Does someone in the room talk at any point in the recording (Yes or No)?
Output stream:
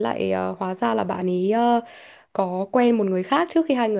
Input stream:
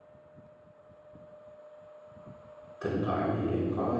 Yes